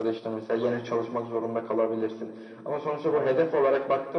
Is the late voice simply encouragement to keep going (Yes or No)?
Yes